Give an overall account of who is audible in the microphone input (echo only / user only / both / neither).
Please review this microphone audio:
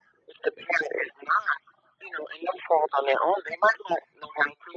echo only